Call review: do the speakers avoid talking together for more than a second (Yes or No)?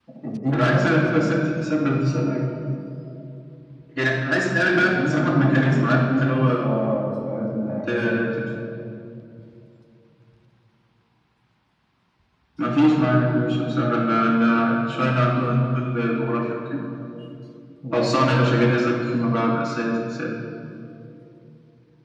No